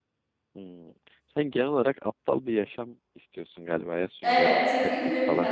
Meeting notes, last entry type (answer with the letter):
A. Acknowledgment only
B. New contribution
B